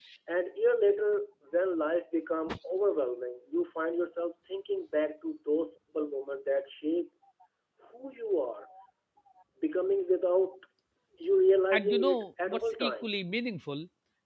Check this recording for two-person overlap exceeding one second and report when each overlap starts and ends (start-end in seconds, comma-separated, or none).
11.7-13.1